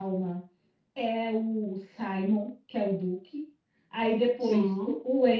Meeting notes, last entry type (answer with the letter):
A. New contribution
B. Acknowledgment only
B